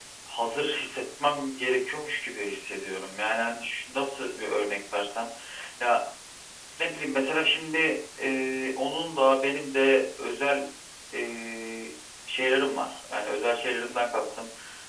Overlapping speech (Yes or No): No